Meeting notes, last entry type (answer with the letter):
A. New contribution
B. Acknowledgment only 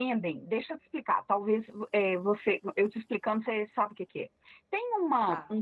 B